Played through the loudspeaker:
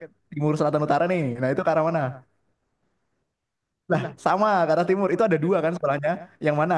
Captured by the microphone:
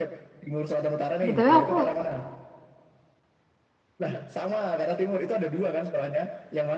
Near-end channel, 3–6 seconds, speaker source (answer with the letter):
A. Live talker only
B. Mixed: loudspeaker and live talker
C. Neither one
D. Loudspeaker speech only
D